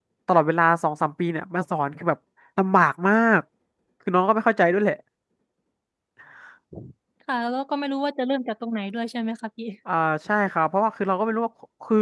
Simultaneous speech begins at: none

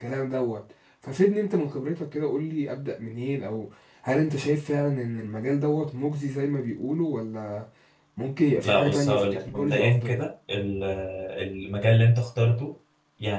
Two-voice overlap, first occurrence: 8.6 s

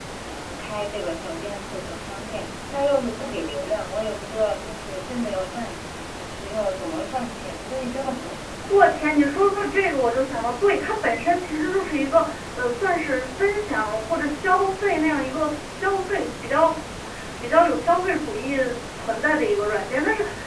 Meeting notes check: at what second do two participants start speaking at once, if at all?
none

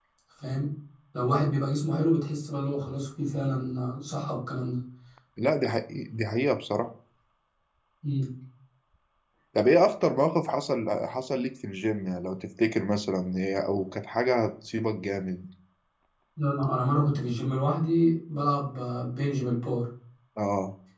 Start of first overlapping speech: none

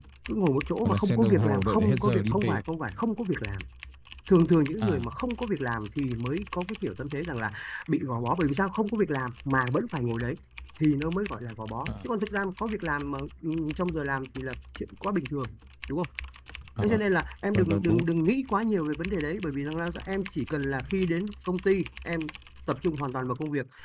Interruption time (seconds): 0.8 s

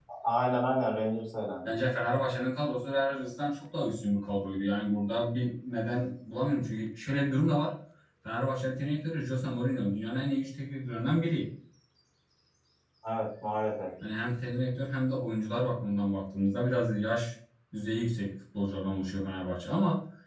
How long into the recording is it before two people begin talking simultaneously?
none

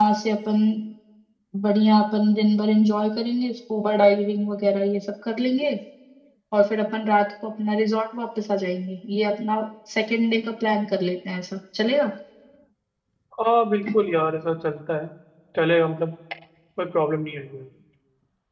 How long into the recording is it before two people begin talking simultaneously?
none

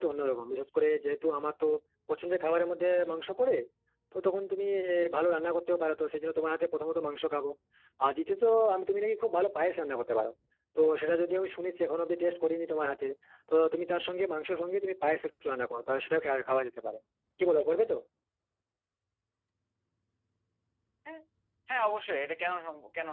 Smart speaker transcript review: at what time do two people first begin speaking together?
none

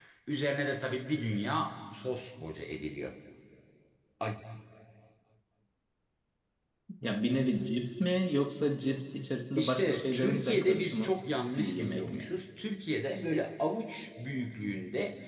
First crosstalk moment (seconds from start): 9.6 s

